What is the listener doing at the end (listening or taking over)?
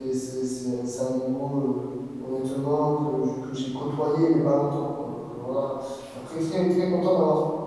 listening